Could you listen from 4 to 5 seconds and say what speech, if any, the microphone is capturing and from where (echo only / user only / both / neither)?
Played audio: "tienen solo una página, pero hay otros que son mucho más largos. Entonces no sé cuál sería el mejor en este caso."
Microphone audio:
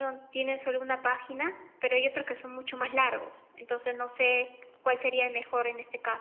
echo only